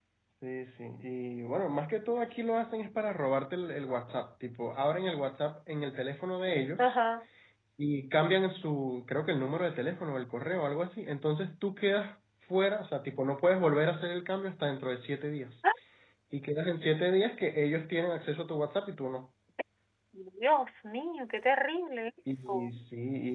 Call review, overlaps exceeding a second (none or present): none